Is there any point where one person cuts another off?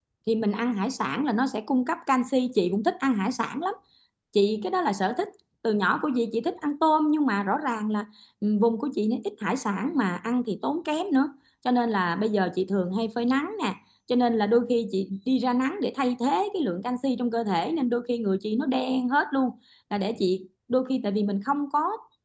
No

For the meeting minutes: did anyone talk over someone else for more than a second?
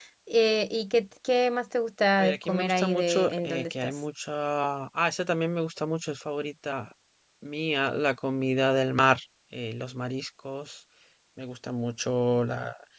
Yes, from 2.2 s

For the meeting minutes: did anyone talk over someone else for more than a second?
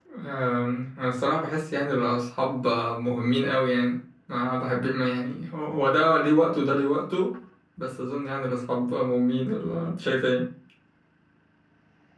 No

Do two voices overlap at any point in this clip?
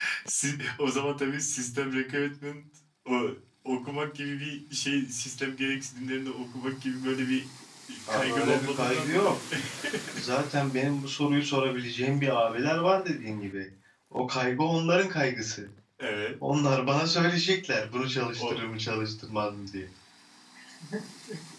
Yes, from 8.1 s

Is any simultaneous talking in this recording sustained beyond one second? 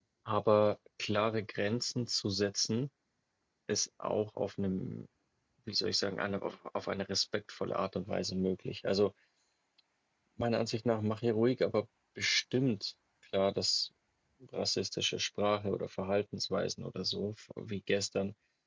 No

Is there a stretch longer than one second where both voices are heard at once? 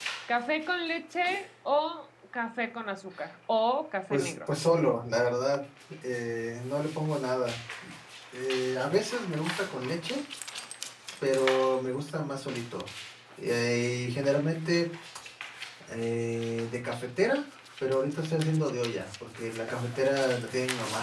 No

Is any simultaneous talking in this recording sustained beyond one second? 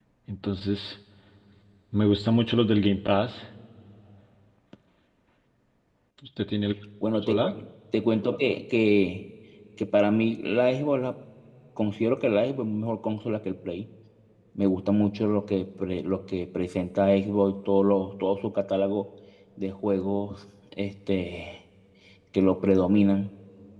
No

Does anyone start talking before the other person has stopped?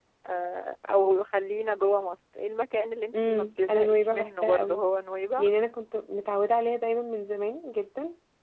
Yes, from 3.1 s

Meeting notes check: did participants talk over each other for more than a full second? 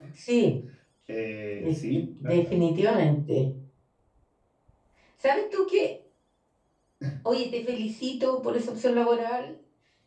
No

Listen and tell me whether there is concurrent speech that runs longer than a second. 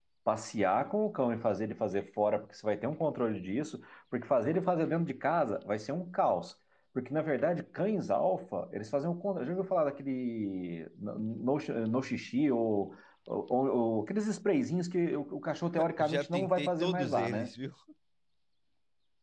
Yes, from 16.0 s

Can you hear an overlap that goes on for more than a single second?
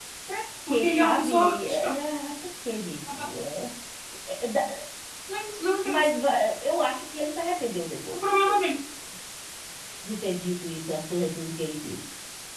Yes, from 0.7 s

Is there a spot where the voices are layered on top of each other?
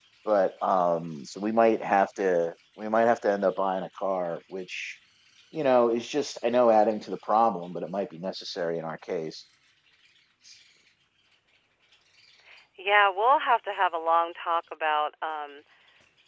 No

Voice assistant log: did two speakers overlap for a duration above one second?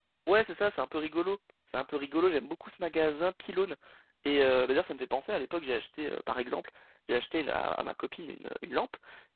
No

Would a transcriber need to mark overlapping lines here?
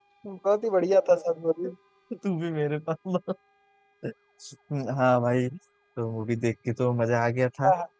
No

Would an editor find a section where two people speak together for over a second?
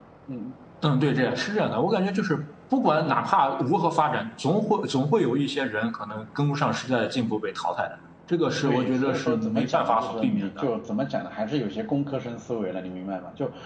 Yes, from 8.6 s

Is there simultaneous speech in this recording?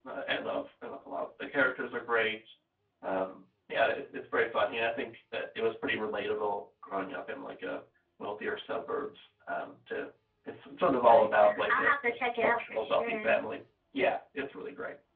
Yes, from 11.1 s

